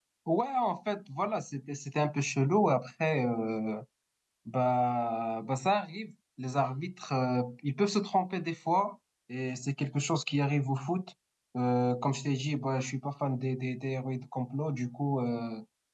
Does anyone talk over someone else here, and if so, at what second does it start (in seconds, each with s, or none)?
none